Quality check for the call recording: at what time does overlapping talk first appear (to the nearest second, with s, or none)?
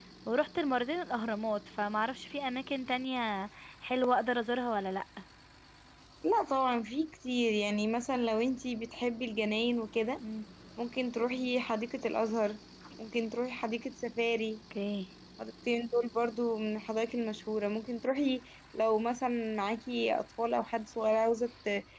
none